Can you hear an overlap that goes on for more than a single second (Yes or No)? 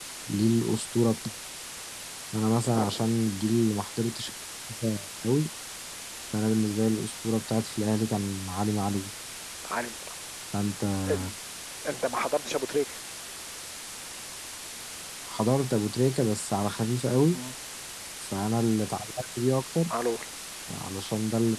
No